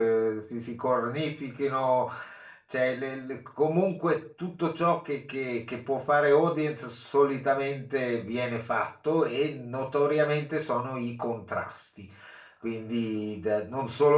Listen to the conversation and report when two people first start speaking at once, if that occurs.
none

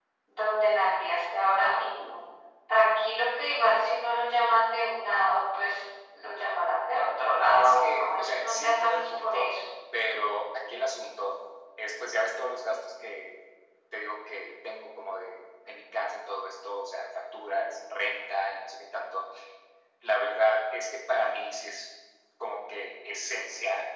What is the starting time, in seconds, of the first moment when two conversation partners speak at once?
7.6 s

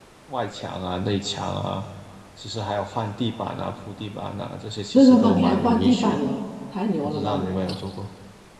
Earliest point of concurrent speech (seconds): 4.9 s

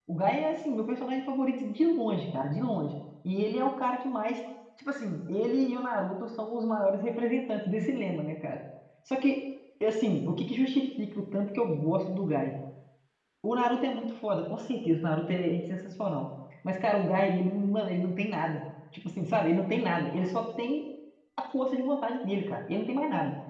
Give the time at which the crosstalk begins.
none

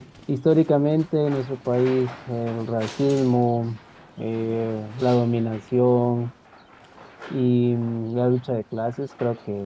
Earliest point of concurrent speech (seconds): none

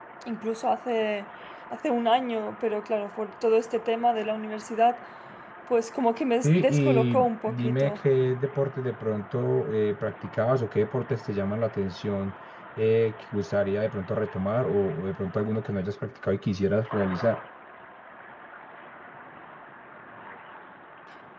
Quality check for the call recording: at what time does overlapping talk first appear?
6.4 s

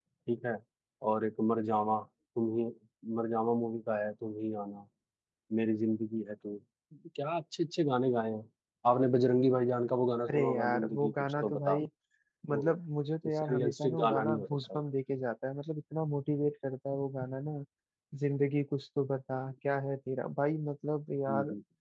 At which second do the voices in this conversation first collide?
10.3 s

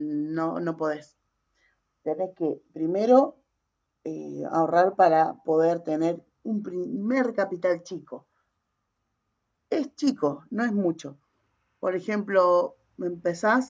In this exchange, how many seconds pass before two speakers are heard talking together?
none

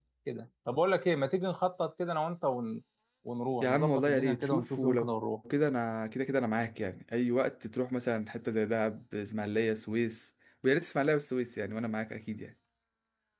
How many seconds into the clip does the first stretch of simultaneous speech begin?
3.6 s

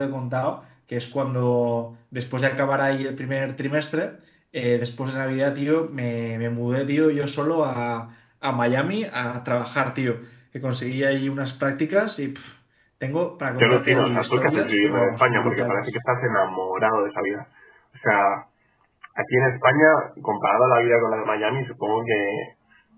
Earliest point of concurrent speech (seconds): 13.6 s

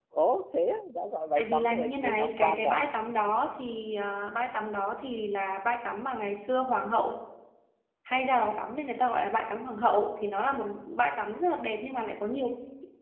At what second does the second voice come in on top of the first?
1.4 s

